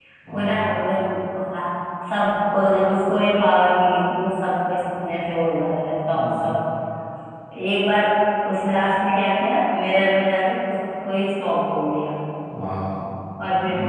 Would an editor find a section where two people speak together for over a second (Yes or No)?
No